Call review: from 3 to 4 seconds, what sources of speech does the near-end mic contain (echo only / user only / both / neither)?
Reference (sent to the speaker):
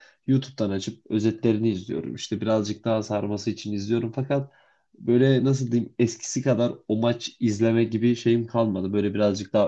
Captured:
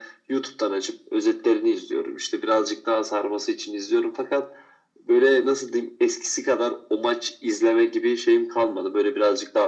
echo only